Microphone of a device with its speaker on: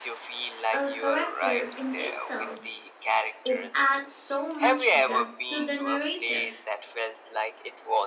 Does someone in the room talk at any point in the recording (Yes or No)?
Yes